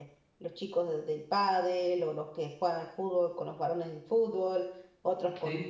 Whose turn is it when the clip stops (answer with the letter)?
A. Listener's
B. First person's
B